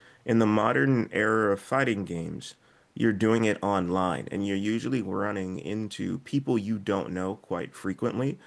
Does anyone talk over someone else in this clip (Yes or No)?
No